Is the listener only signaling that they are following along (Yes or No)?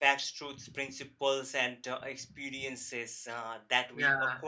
Yes